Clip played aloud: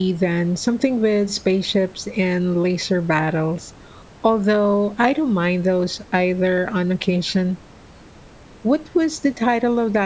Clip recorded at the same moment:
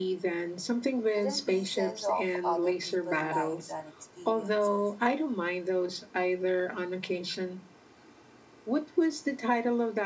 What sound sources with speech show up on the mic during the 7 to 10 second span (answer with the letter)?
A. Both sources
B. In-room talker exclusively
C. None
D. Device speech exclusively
D